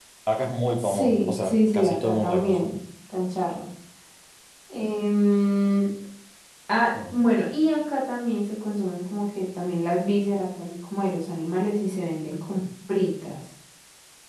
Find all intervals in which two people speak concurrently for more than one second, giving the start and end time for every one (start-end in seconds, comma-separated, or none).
0.8-2.7